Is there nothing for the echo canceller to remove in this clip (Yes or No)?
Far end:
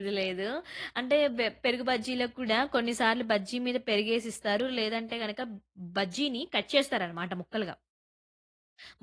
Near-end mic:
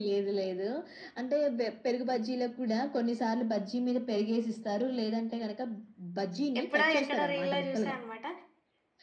No